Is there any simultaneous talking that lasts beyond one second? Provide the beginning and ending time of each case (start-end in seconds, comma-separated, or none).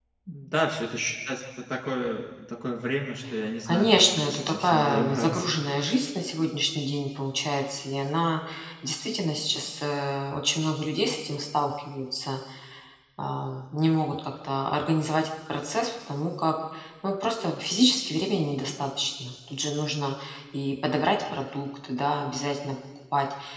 3.6-5.4